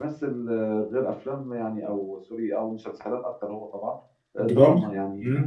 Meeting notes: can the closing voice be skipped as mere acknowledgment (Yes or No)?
Yes